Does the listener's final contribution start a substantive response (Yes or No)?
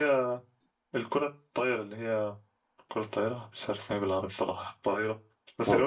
No